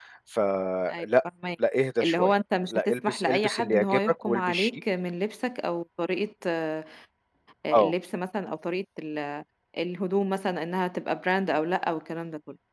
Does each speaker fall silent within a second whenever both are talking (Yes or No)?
No